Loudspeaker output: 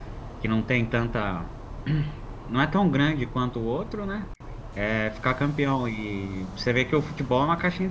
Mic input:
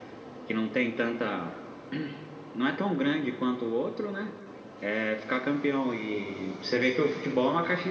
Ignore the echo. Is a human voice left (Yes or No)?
No